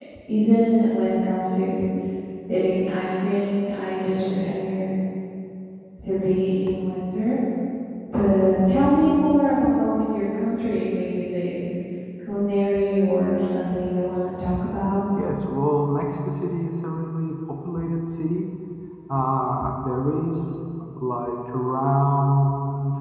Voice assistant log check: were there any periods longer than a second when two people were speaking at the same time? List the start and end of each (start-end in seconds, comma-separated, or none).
none